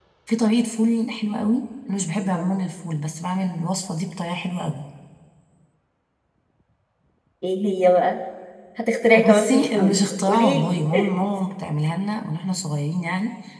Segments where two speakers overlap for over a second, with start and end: 9.1-10.8

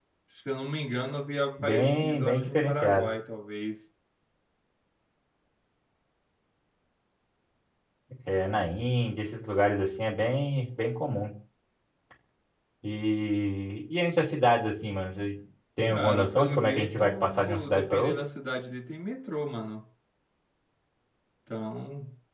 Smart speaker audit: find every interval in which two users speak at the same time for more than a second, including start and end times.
1.6-3.1, 15.9-18.2

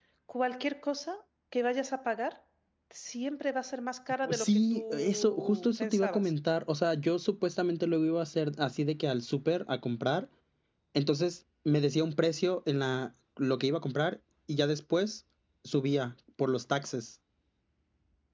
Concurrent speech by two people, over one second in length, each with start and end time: 4.3-6.3

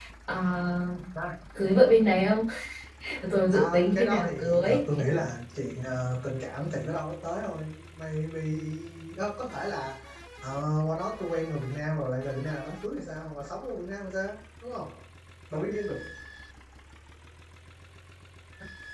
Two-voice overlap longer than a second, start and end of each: 3.5-4.8

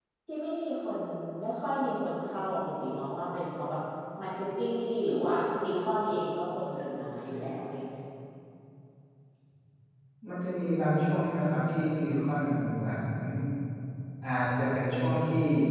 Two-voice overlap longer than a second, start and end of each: none

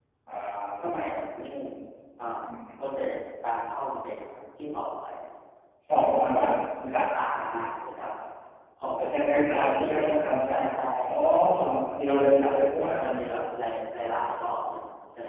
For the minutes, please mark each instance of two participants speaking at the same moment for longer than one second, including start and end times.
9.1-10.6

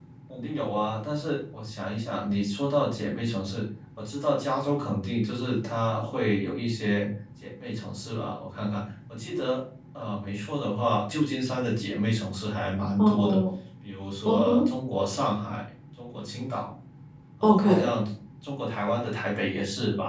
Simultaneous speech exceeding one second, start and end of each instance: none

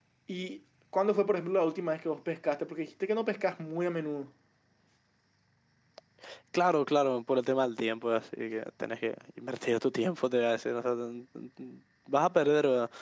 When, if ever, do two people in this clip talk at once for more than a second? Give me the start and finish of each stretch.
none

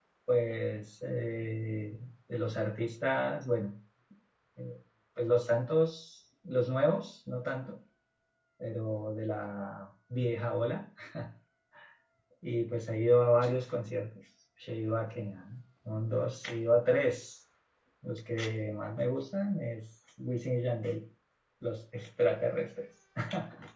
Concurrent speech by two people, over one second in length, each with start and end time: none

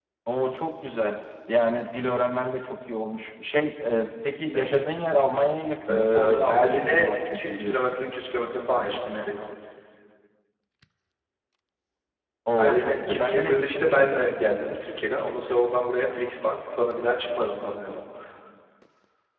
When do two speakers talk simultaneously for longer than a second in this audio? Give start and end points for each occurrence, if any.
5.9-7.8, 12.6-14.1

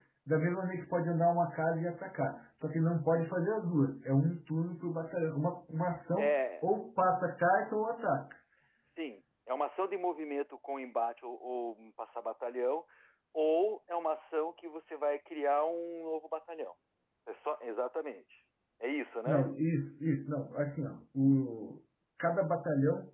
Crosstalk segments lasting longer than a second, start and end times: none

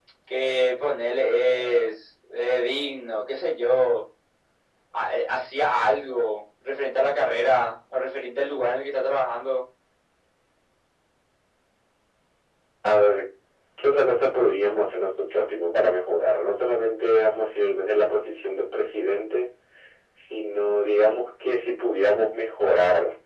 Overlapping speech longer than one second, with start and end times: none

